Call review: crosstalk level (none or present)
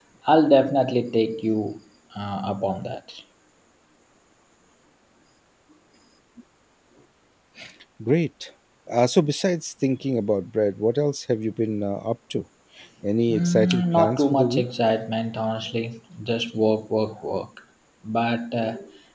present